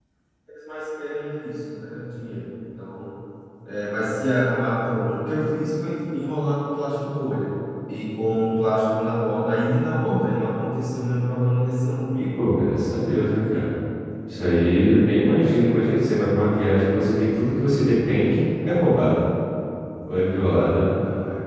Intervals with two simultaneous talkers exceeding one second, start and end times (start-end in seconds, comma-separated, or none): none